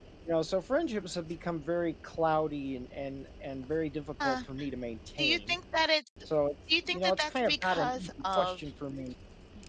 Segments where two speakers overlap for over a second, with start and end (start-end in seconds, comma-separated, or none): 6.8-8.6